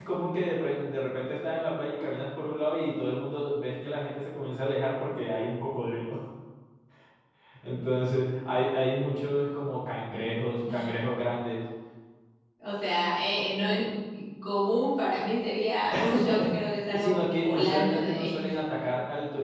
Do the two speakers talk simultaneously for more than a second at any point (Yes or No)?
Yes